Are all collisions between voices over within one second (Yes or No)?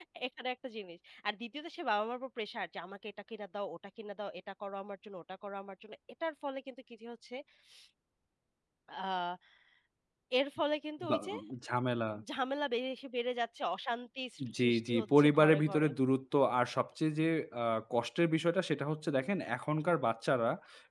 No